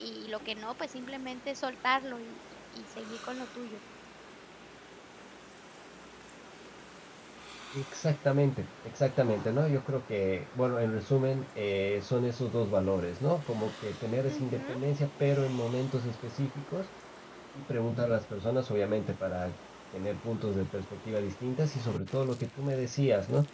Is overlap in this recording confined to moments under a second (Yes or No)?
Yes